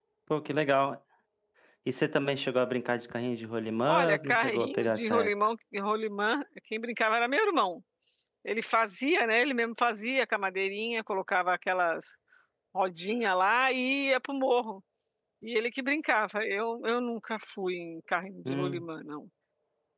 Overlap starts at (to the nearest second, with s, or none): 4 s